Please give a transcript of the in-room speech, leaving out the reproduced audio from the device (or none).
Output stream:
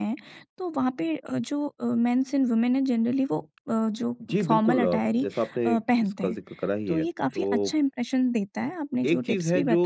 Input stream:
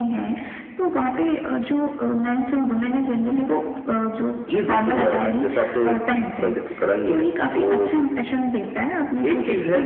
none